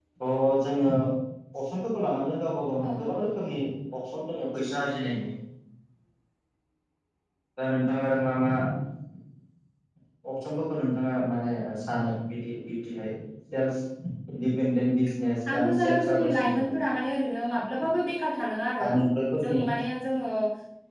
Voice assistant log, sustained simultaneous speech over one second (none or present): present